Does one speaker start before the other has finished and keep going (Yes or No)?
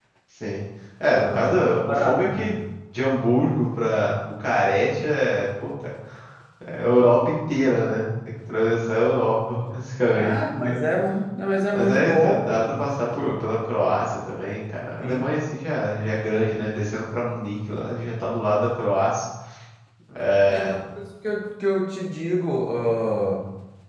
Yes